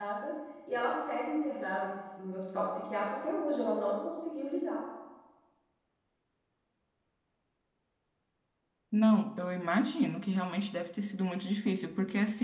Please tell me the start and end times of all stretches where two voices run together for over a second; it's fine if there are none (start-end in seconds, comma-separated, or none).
none